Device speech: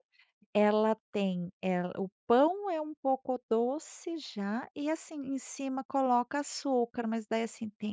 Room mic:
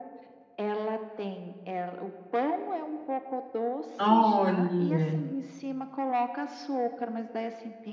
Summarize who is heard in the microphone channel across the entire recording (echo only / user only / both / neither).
both